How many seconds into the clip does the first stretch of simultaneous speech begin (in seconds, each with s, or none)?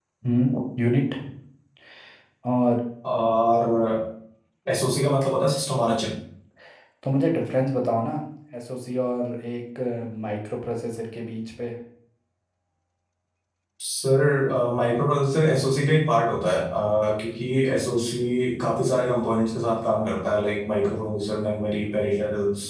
none